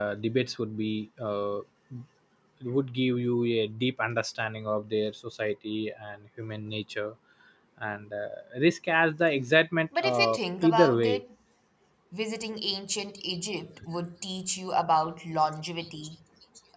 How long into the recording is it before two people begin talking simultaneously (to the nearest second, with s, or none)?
10 s